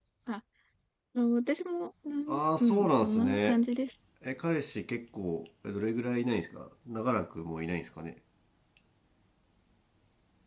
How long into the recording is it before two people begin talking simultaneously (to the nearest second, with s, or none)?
2 s